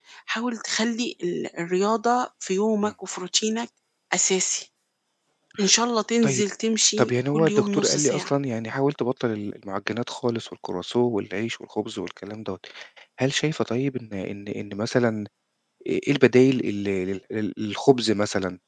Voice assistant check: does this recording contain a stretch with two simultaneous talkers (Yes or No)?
Yes